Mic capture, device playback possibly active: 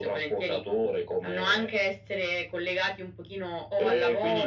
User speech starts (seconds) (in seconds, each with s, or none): none